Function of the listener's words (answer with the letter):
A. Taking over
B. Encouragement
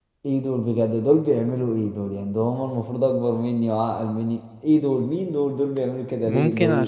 A